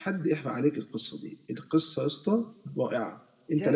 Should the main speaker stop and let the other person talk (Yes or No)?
Yes